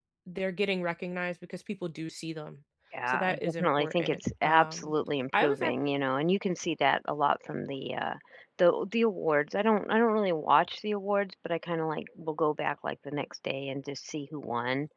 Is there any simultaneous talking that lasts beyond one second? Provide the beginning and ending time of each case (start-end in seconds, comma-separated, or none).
3.1-4.9